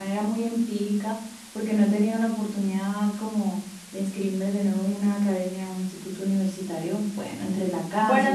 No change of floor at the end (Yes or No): No